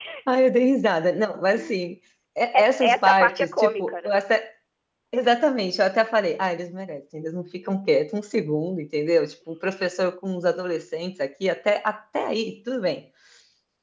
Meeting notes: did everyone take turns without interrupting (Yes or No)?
No